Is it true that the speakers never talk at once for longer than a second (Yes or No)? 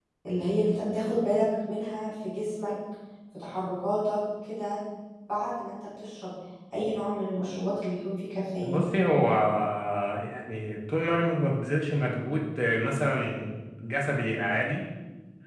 Yes